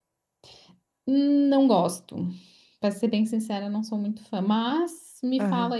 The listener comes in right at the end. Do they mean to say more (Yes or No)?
Yes